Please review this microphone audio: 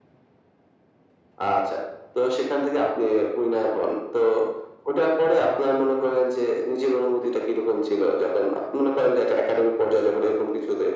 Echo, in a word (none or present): present